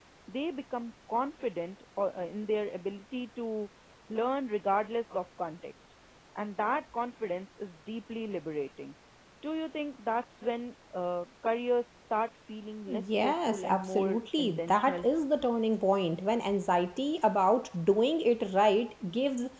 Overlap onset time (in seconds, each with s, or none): 12.9 s